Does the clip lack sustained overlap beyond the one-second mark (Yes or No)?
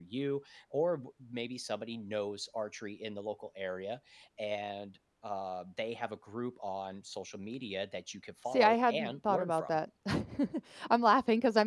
No